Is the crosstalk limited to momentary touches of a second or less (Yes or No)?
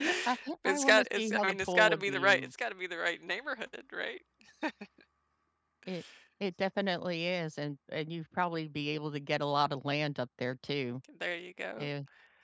No